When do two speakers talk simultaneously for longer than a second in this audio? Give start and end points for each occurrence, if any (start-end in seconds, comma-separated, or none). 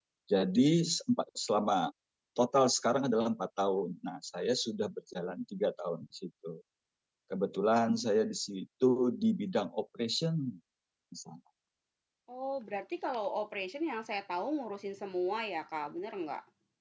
none